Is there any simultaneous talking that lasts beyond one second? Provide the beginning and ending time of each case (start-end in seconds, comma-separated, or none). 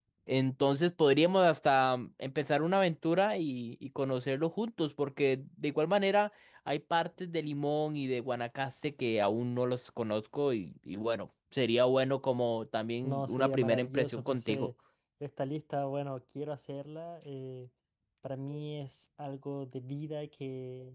13.0-14.7